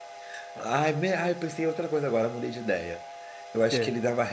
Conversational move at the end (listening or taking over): listening